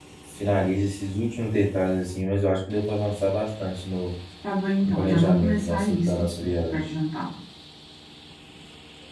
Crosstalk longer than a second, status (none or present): present